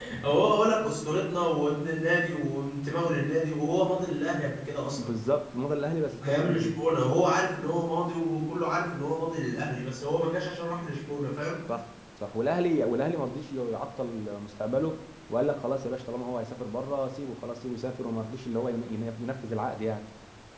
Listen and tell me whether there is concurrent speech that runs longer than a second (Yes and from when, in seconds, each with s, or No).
No